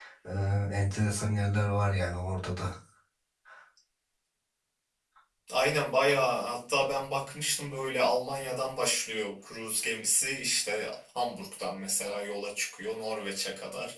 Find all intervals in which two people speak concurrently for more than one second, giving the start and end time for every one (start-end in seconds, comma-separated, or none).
none